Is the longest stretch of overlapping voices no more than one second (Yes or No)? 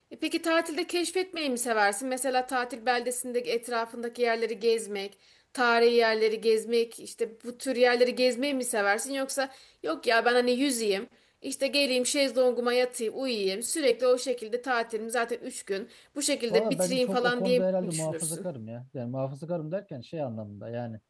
No